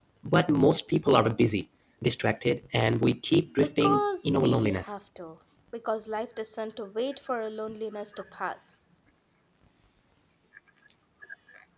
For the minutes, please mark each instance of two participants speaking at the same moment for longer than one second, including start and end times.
3.6-4.9

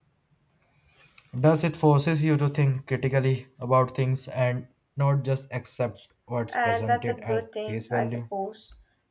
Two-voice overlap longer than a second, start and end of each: 6.5-8.2

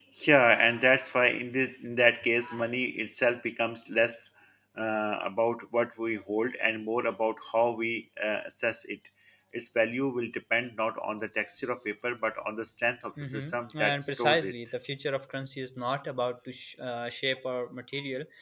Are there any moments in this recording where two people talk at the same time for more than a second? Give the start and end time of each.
13.2-14.7

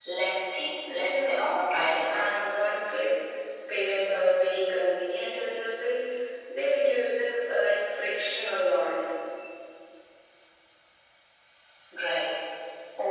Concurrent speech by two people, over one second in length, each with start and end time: none

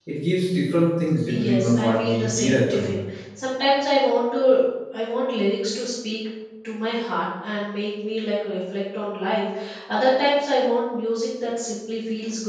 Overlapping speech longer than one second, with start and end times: 1.4-3.0

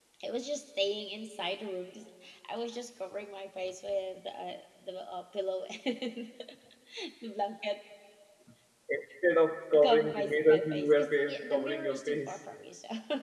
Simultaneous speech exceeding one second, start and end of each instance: 9.8-12.4

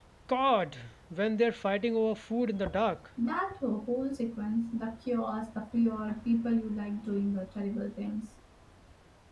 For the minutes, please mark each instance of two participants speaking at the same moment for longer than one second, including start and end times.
none

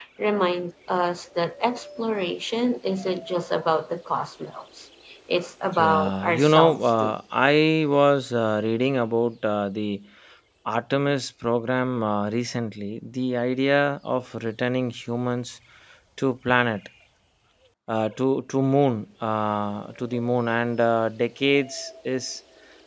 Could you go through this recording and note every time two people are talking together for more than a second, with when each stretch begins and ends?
5.7-7.1

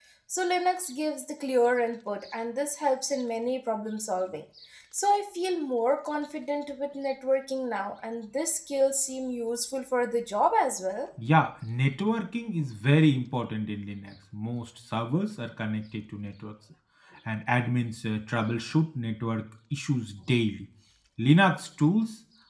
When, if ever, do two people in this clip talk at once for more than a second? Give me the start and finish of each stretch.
none

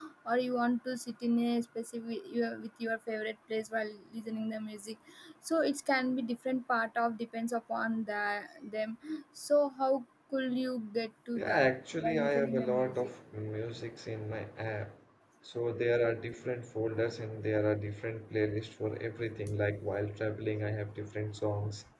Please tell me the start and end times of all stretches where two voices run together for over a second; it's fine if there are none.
11.3-13.1

